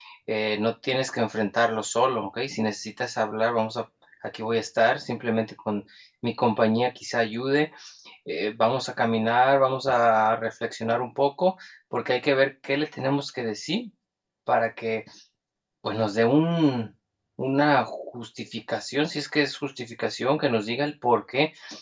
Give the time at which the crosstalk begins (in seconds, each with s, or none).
none